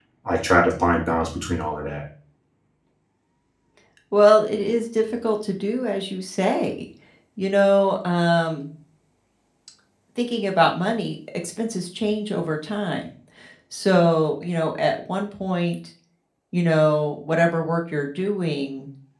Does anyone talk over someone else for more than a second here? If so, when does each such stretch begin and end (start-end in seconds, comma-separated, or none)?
none